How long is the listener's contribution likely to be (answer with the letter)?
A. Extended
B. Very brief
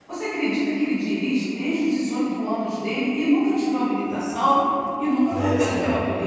A